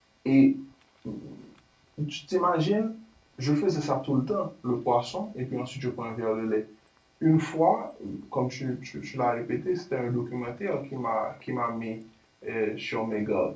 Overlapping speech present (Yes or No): No